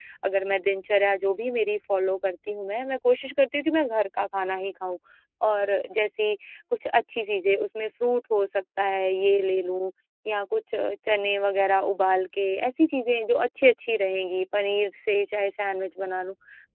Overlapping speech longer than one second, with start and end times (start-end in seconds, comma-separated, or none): none